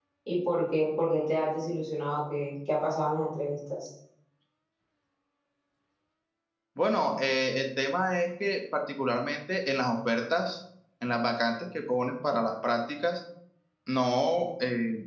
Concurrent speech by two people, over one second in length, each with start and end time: none

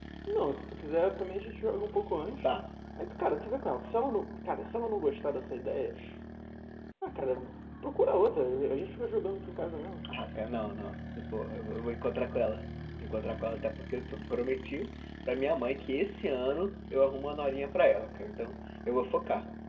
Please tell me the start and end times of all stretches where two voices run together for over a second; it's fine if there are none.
none

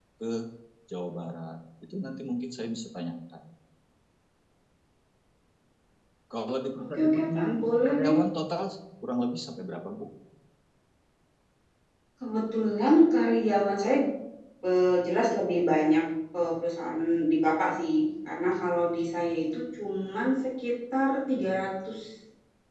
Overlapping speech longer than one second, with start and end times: 7.0-8.2

